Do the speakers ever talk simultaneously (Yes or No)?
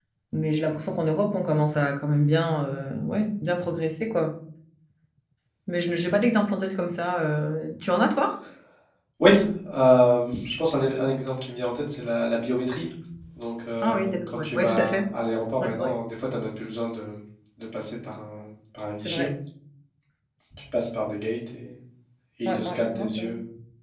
Yes